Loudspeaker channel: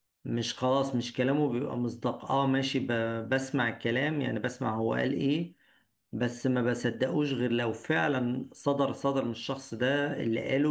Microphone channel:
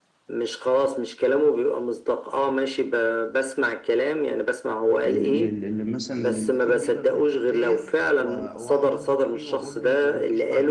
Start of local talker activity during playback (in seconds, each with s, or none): 5.0 s